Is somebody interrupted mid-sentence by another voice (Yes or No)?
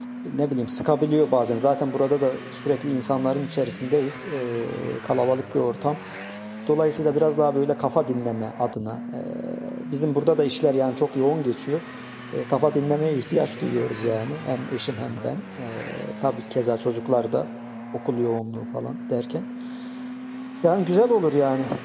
No